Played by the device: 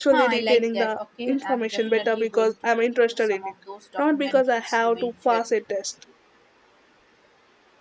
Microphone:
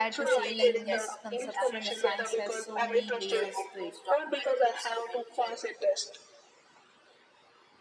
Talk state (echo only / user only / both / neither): both